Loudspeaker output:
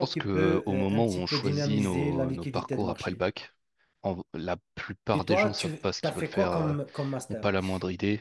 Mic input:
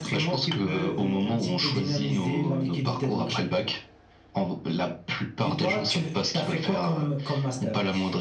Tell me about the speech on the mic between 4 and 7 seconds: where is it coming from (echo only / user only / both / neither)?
echo only